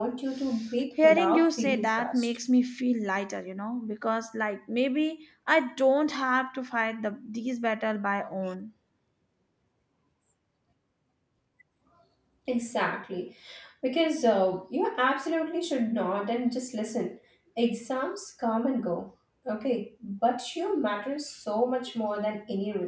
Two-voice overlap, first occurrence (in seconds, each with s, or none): 1.0 s